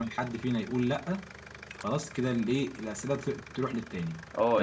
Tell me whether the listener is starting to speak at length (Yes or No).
Yes